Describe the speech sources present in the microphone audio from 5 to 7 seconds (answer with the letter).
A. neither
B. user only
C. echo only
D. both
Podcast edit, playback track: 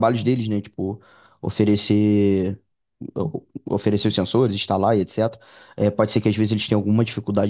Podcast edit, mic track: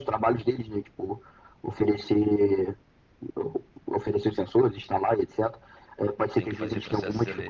D